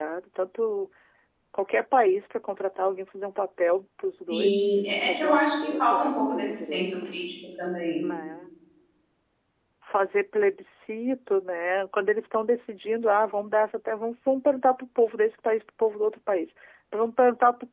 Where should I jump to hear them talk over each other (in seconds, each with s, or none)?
4.3 s